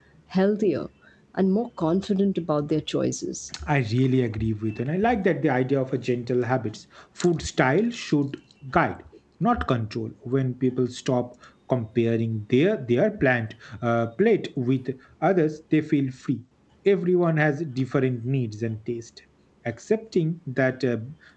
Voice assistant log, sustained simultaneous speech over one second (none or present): none